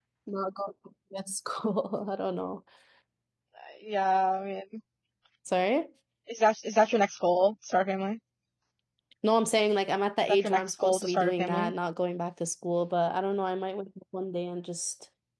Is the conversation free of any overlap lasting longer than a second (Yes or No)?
No